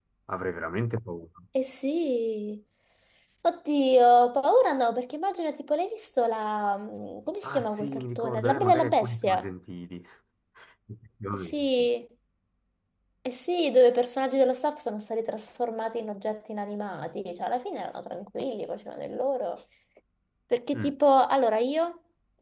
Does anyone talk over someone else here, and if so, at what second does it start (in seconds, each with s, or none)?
7.4 s